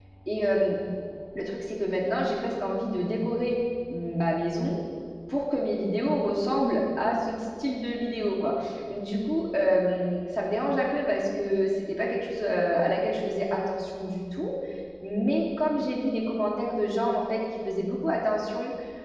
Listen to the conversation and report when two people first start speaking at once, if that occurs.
none

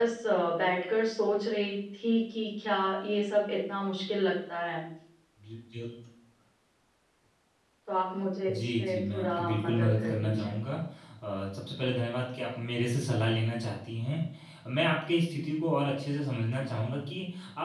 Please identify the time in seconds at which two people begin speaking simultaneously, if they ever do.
8 s

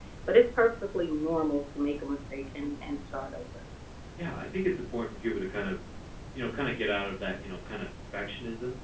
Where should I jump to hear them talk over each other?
none

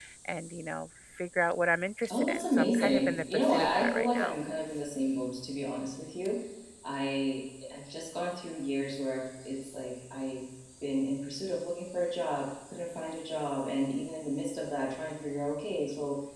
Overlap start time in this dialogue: 2 s

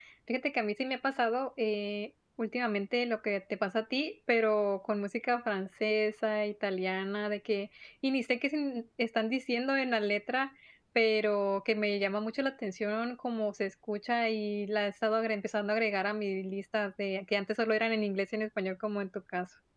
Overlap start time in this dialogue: none

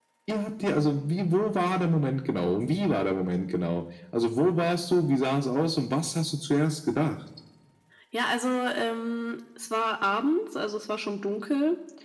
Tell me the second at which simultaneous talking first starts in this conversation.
none

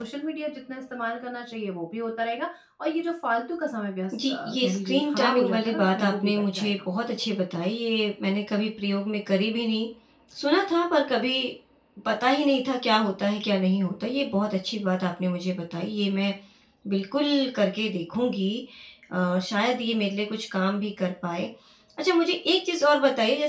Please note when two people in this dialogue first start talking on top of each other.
4 s

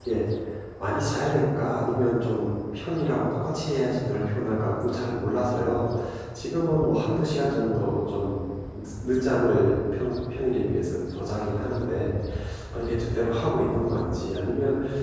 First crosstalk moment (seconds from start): none

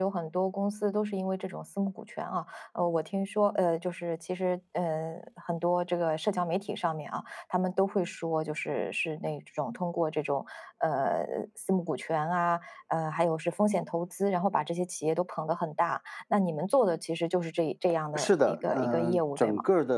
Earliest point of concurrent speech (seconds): 18 s

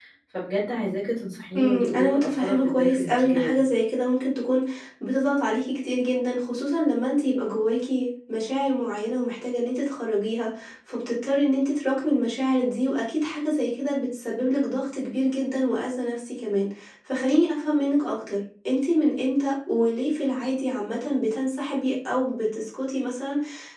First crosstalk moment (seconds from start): 2 s

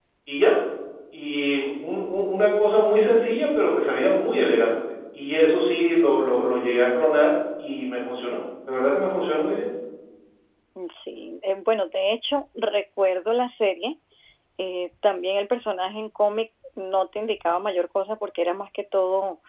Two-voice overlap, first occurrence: none

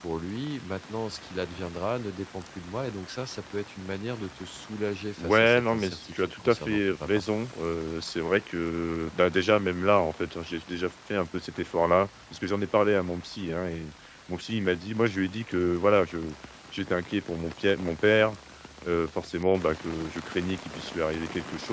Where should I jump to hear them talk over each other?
5 s

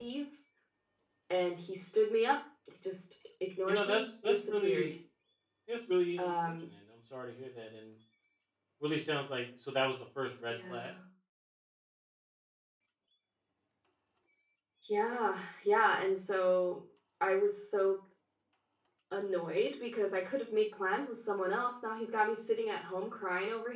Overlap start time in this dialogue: 4 s

